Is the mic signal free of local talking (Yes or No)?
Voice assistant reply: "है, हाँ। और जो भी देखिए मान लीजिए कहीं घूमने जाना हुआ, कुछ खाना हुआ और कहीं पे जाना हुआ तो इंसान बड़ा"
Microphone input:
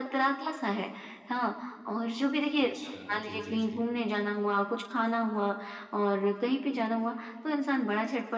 No